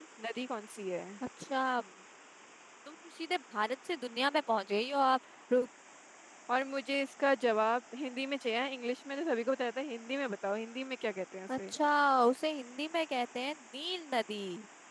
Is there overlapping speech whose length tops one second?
No

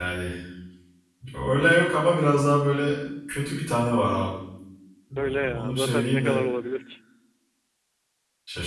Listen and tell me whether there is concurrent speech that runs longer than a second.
Yes, from 5.2 s

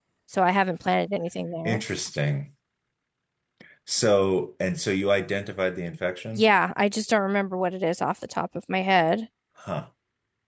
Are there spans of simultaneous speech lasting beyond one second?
No

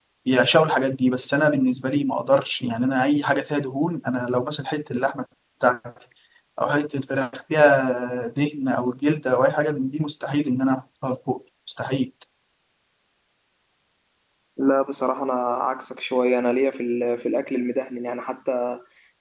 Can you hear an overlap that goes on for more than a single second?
No

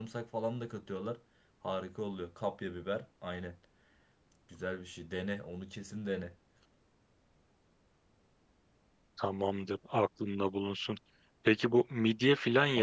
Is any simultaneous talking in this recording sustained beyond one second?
No

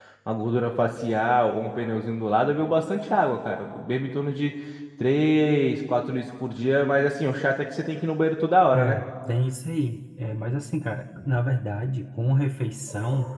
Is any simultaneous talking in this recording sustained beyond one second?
No

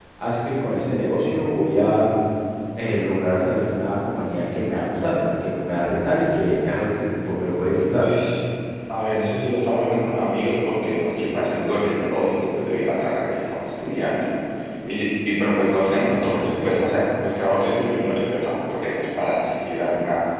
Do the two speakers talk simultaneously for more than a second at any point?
No

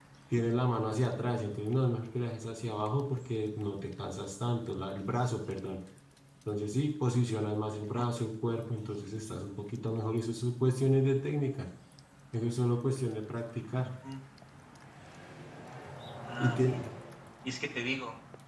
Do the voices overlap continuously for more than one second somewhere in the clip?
No

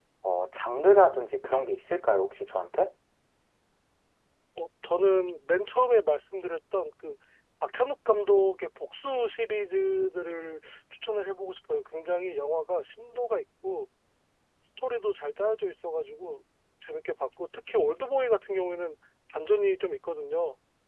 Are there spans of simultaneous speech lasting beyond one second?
No

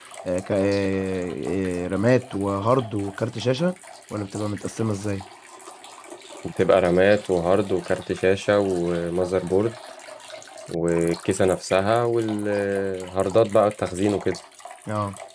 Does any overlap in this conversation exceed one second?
No

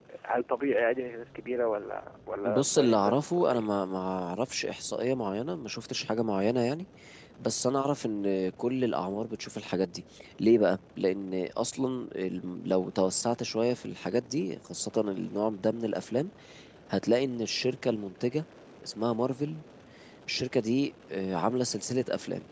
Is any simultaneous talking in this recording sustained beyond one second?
Yes, from 2.5 s

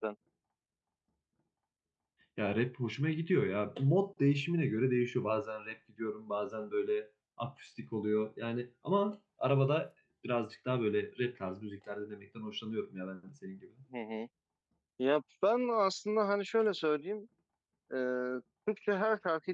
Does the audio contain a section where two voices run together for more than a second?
No

